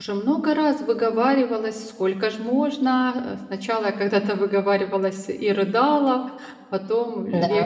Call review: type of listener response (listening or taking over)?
listening